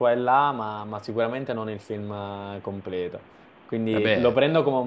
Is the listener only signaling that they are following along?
Yes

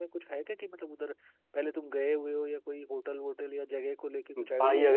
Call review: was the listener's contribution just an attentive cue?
No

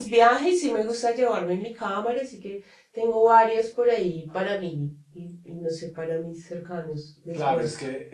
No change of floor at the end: No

